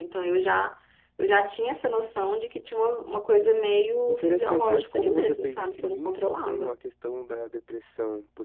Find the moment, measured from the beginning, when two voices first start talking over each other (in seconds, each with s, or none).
4.1 s